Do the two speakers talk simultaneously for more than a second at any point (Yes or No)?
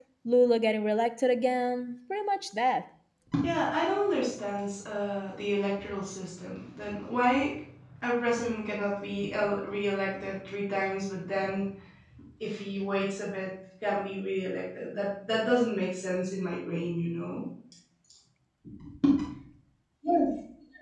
No